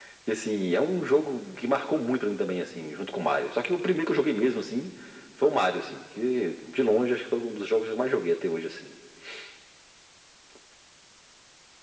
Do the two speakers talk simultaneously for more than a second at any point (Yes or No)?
No